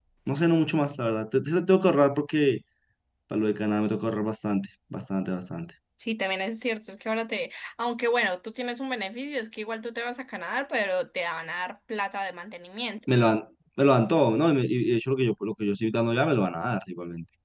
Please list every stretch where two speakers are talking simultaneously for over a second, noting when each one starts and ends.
none

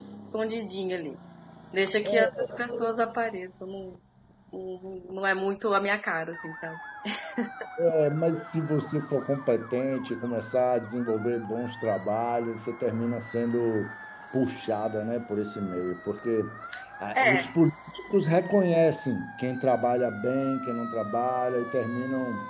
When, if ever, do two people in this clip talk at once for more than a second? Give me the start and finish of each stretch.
none

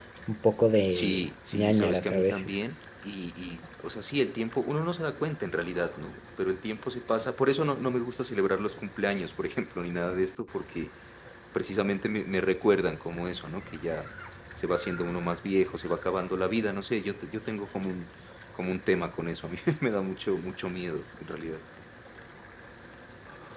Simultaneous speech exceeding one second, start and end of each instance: 0.9-2.6

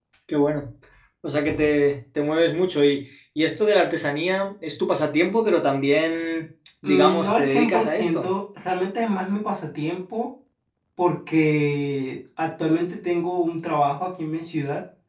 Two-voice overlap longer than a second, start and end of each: 6.8-8.3

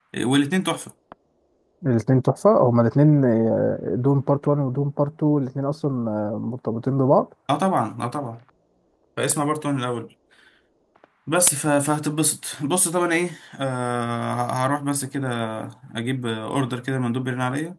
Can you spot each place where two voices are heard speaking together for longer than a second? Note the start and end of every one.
none

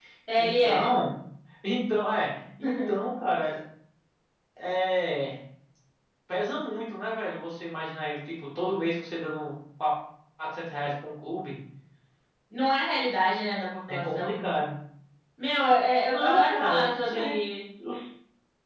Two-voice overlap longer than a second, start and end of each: 16.0-17.4

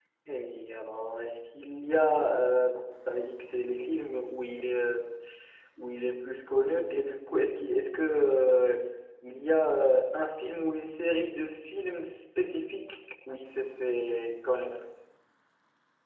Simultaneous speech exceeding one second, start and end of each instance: none

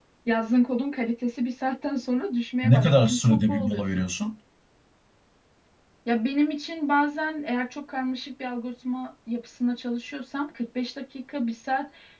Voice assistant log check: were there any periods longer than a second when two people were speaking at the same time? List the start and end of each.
2.6-4.1

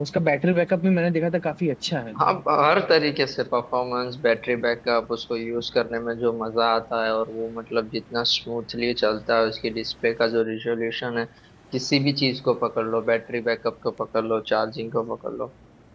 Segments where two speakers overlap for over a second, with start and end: none

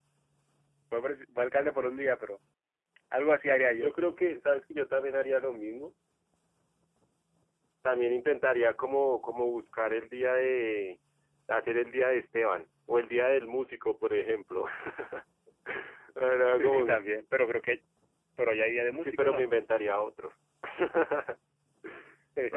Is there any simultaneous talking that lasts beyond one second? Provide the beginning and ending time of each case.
none

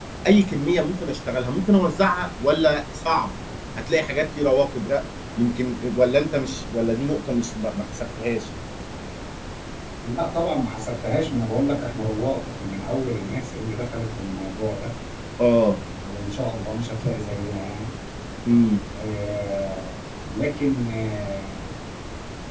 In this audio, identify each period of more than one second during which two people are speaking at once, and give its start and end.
none

